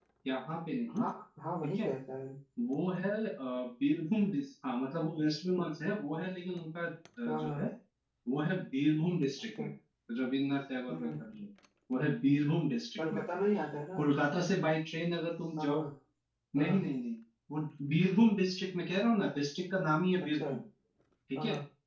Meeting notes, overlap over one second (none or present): none